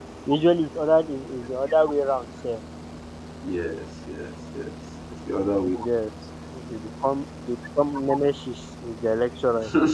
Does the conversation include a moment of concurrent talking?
No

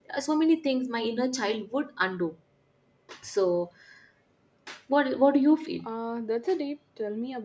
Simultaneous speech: No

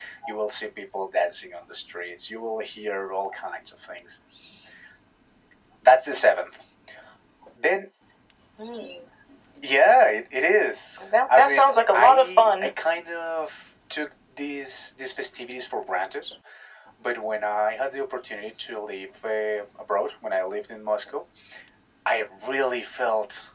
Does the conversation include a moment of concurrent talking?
Yes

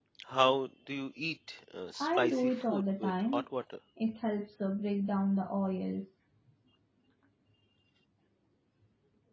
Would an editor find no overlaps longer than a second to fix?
No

